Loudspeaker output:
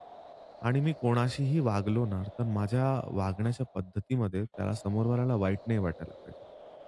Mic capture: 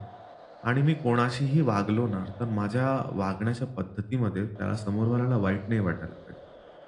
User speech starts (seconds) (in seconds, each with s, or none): none